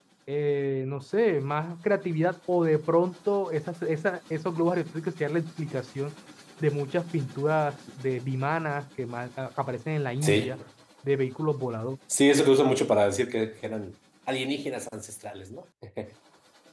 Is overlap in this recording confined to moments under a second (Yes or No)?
Yes